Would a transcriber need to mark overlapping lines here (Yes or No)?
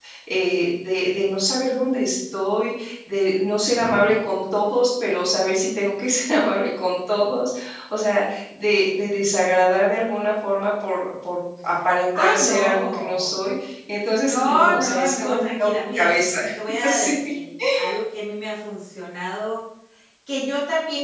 Yes